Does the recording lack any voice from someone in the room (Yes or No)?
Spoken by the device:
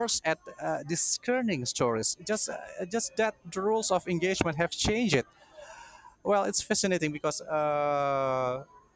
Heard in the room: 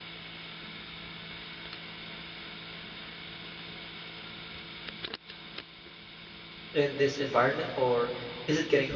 No